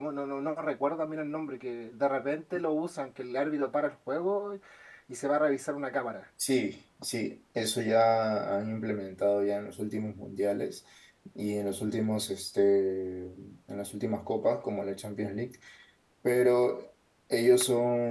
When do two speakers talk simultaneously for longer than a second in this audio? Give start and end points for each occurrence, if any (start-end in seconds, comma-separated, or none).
none